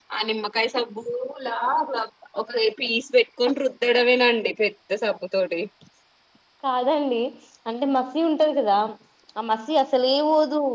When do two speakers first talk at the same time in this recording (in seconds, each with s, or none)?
none